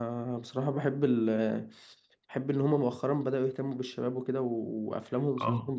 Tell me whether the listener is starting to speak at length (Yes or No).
Yes